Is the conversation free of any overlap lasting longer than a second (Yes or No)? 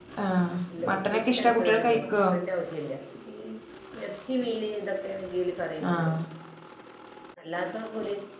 No